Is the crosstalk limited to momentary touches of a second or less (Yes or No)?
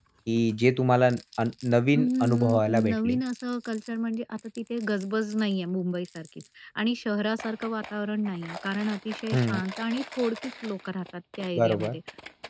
No